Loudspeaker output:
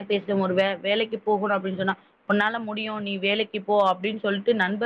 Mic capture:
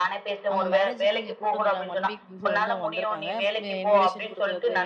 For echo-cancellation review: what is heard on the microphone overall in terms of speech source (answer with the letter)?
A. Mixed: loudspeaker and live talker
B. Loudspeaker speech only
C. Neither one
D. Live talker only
A